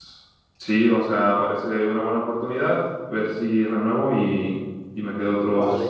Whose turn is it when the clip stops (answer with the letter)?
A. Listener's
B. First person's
A